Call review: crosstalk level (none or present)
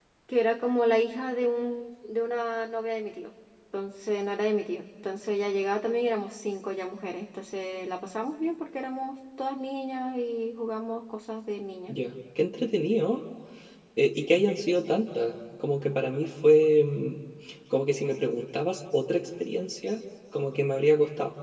none